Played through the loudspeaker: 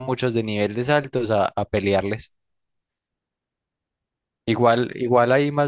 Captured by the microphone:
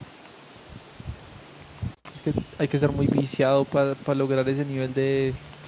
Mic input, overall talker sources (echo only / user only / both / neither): user only